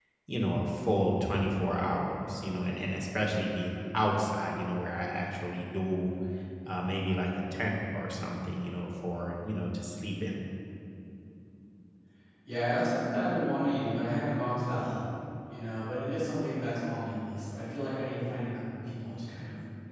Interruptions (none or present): none